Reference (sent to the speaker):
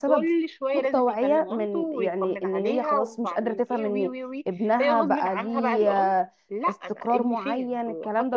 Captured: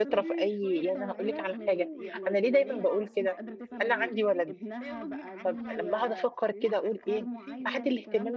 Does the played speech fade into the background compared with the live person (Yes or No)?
Yes